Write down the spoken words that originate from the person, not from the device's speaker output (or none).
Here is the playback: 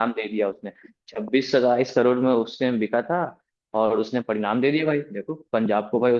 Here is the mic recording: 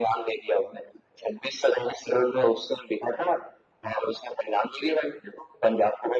none